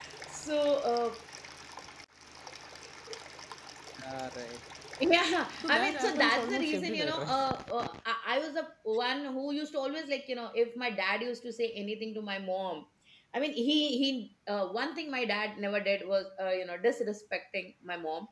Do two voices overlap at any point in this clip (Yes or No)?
Yes